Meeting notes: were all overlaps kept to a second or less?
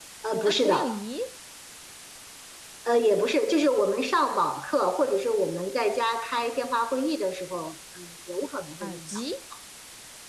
Yes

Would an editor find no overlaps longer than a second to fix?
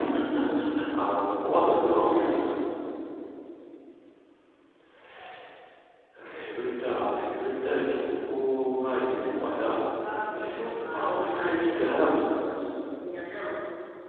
No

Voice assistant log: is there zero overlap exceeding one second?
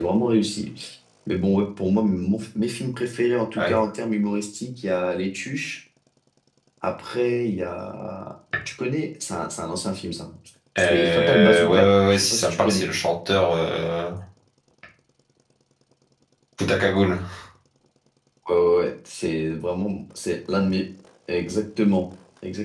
No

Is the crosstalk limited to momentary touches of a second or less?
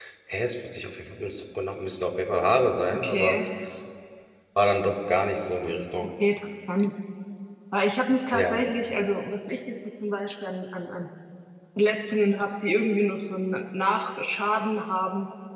Yes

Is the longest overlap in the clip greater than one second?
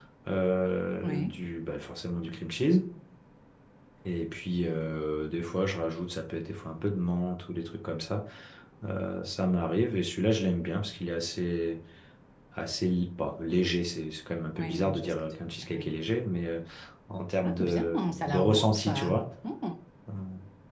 Yes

